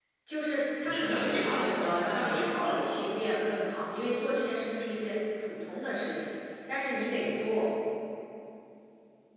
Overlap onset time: 0.8 s

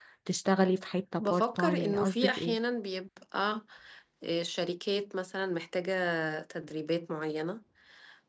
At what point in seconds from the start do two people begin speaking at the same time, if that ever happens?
1.2 s

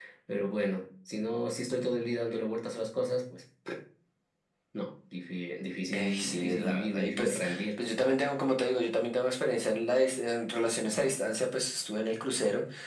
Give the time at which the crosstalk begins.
5.9 s

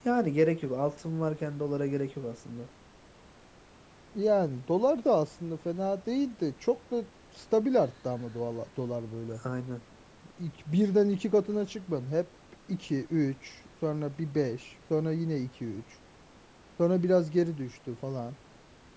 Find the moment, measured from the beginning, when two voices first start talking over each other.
none

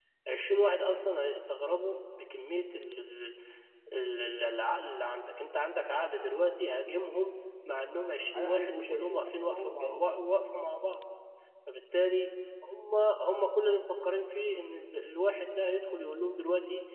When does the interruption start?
8.3 s

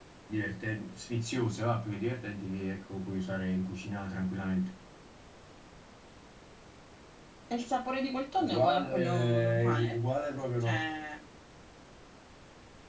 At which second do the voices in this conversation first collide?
8.4 s

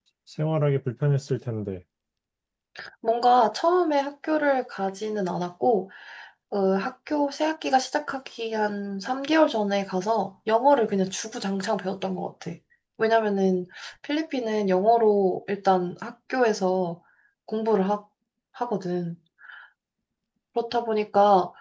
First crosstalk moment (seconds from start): none

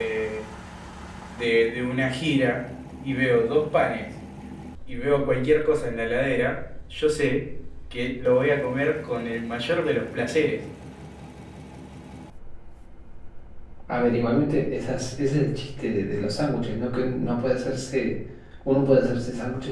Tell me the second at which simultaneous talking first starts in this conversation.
none

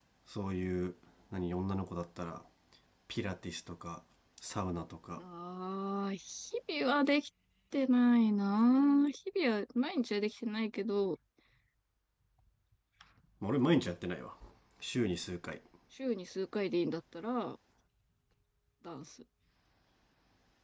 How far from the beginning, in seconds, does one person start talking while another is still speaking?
none

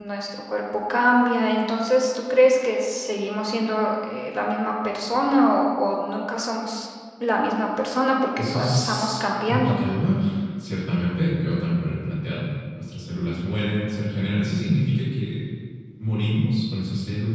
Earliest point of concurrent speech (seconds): 8.4 s

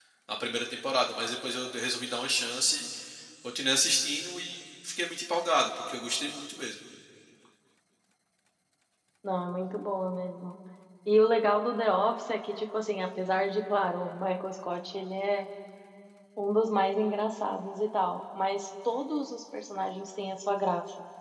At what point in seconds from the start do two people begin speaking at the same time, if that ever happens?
none

